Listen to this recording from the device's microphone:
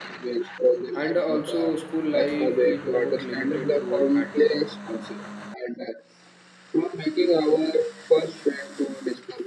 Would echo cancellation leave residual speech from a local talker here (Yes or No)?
Yes